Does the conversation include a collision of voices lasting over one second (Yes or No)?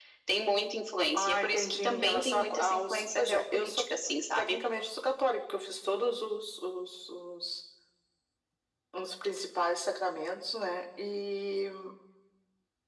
Yes